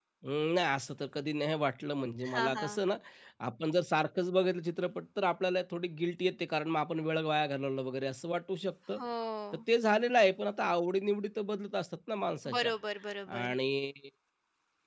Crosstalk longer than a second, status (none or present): none